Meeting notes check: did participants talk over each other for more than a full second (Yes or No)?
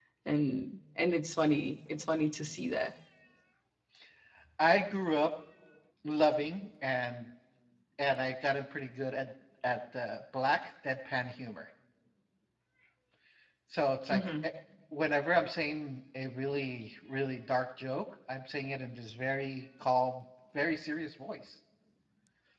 No